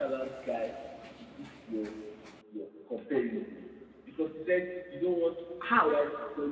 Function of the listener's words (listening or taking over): listening